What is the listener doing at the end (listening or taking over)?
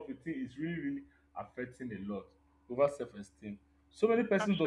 listening